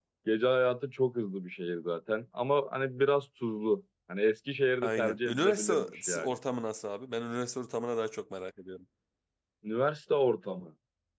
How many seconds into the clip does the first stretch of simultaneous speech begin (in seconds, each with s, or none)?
4.8 s